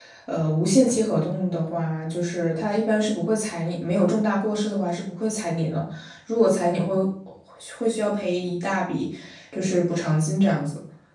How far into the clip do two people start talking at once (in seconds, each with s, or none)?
none